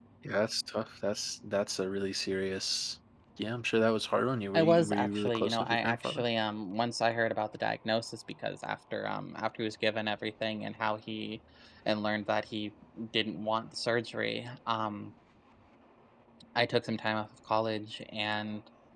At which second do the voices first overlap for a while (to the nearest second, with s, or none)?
5 s